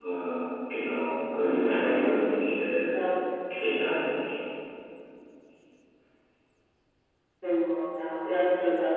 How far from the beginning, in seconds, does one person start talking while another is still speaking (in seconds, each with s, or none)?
none